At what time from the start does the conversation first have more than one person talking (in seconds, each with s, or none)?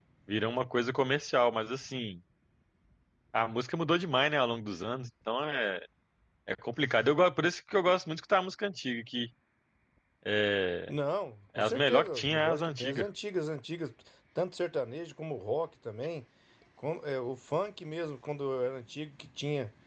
11.6 s